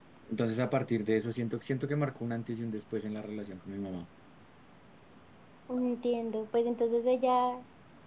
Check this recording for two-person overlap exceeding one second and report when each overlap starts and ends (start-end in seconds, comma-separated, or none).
none